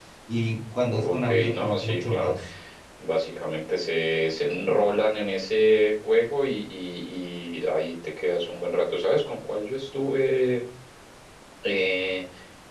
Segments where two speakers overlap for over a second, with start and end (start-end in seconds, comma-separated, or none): 0.8-2.3